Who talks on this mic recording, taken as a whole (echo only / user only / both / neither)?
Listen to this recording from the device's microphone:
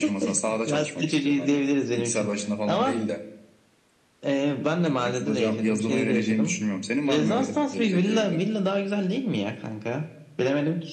echo only